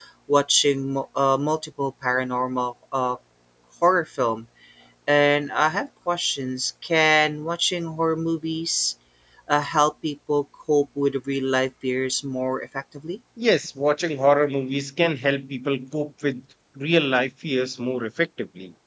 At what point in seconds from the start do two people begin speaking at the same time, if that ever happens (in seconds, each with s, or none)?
none